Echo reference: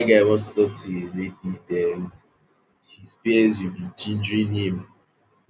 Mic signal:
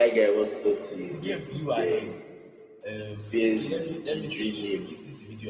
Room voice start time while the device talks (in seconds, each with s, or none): 1.1 s